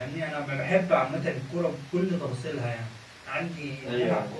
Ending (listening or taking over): listening